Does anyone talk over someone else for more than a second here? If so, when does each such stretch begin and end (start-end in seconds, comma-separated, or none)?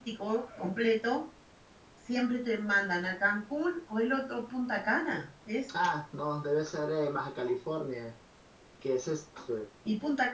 none